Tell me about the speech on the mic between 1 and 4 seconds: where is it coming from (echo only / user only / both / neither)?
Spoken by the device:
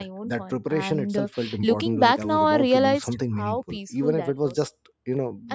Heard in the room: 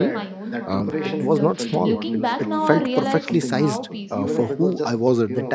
both